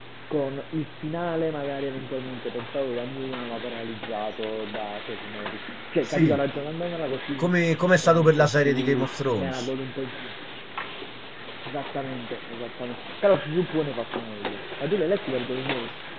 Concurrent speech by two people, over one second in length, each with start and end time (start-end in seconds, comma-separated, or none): 8.0-9.7